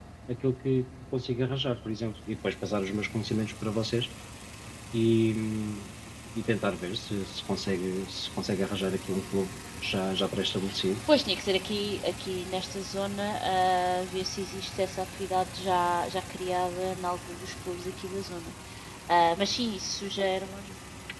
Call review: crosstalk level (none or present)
none